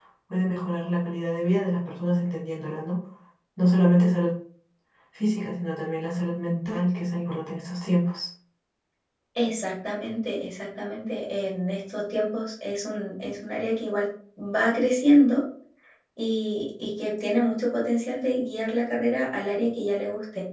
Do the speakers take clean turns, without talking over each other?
Yes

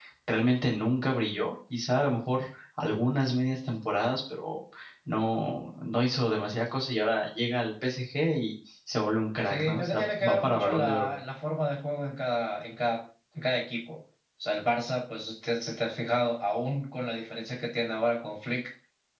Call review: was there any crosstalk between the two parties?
Yes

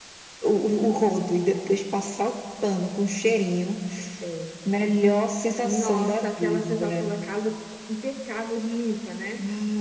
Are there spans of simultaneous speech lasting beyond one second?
Yes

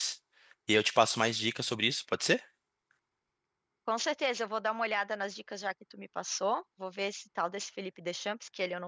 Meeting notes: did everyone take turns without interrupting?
Yes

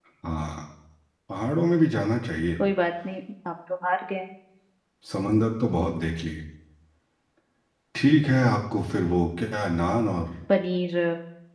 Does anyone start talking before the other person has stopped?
No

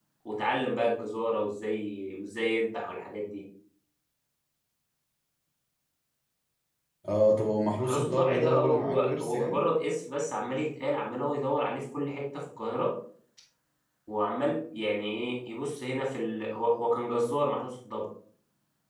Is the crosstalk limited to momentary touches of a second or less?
No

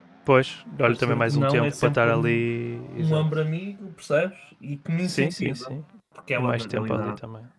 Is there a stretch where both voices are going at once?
Yes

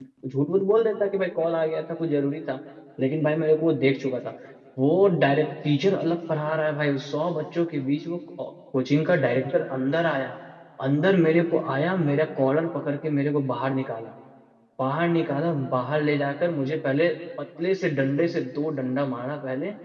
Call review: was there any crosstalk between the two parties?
No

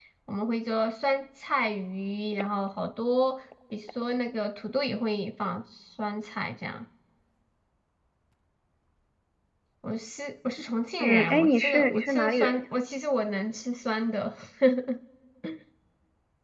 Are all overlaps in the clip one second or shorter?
No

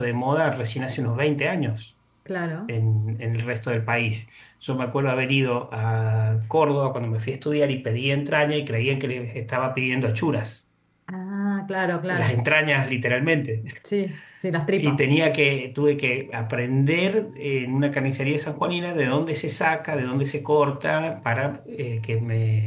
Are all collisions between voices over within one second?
Yes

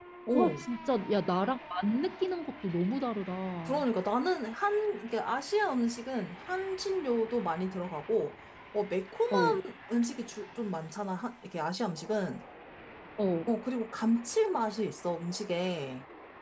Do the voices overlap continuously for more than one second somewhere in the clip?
No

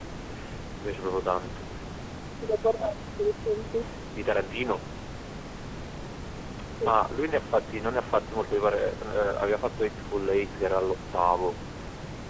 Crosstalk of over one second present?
No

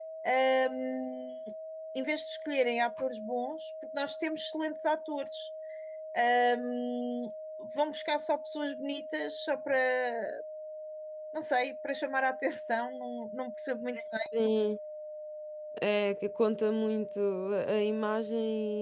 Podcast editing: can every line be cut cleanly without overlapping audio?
Yes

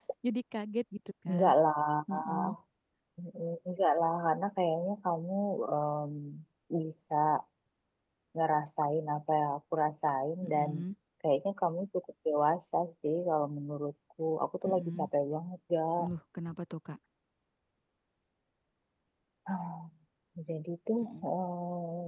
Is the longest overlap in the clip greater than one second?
No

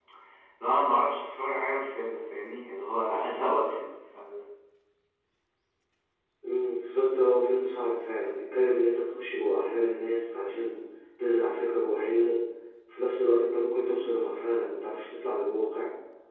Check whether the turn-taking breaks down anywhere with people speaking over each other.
No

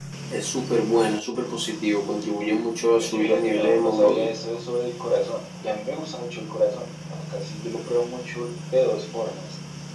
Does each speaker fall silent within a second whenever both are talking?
No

